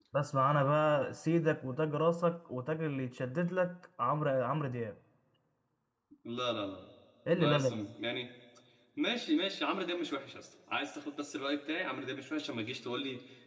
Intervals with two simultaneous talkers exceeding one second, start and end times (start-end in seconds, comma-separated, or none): none